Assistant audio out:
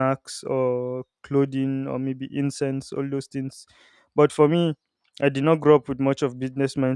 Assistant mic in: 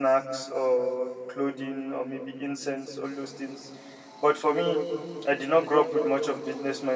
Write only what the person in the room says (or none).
none